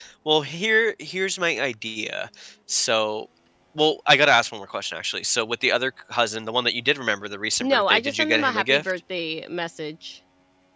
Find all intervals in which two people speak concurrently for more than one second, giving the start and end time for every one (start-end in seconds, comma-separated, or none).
7.6-8.8